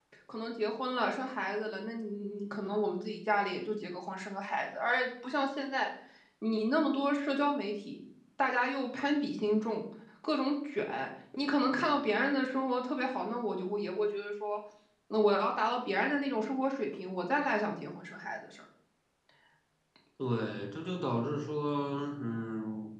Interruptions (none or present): none